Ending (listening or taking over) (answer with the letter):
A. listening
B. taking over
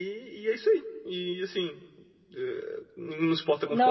A